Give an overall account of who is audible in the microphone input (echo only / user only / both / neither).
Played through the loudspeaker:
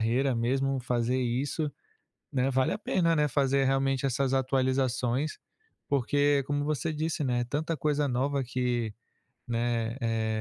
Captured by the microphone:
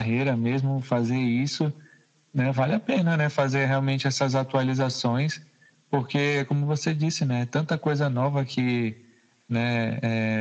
echo only